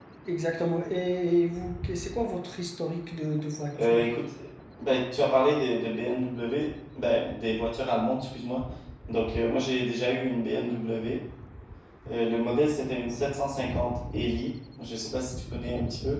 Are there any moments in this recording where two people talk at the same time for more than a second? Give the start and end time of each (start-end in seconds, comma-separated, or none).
none